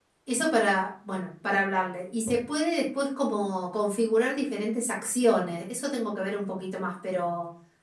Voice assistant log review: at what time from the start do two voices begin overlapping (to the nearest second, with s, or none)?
none